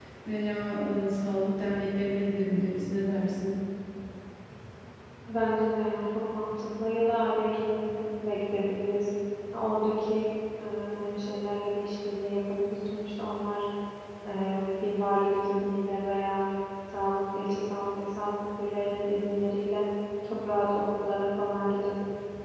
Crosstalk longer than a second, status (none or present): none